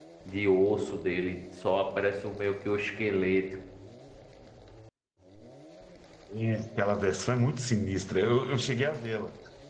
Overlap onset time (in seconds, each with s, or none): none